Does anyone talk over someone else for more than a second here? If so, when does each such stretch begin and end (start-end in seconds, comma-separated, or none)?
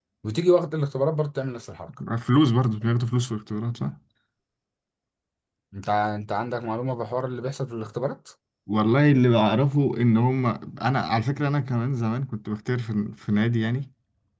none